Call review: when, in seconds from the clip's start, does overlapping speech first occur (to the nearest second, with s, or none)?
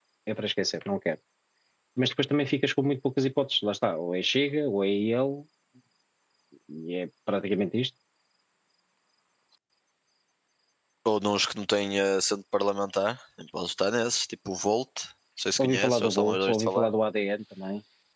16 s